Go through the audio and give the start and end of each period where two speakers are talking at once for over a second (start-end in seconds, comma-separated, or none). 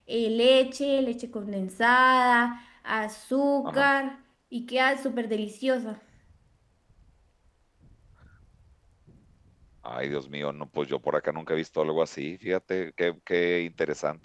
none